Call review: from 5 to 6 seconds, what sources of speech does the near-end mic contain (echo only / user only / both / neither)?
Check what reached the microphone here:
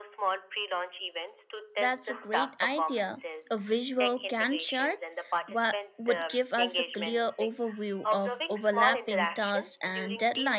both